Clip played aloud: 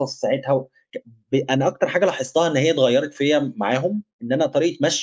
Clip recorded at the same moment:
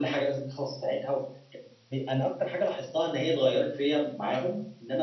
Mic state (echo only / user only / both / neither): echo only